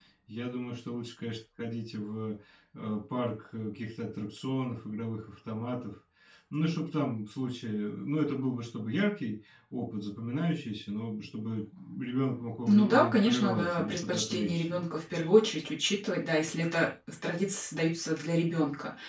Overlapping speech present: Yes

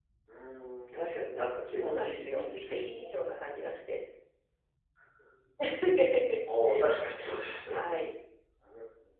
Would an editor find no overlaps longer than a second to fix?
No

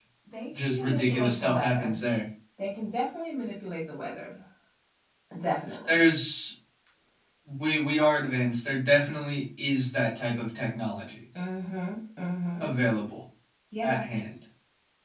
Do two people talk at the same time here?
Yes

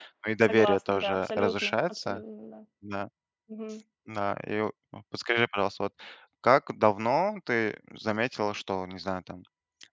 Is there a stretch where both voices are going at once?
Yes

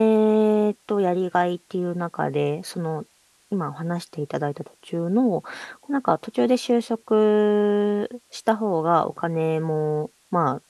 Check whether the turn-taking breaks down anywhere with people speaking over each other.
No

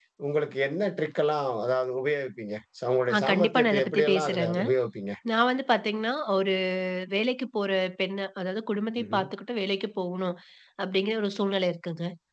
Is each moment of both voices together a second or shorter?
No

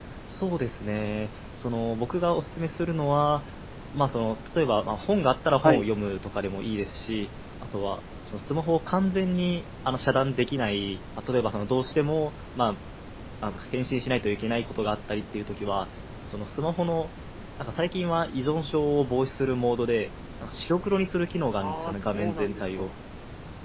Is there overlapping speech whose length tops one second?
Yes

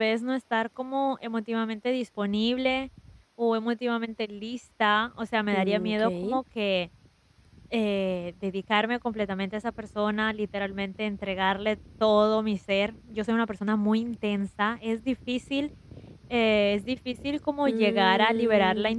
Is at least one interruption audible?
Yes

